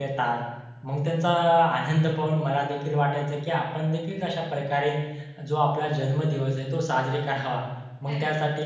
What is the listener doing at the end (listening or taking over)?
listening